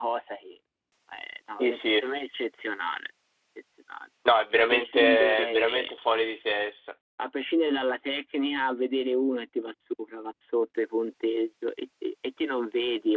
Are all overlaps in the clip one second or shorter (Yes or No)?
No